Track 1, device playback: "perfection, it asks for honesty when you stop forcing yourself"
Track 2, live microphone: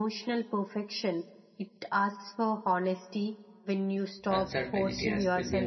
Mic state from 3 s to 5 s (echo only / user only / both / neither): both